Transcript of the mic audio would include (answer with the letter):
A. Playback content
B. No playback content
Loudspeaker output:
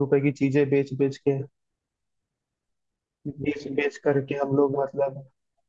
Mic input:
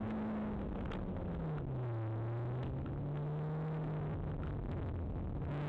B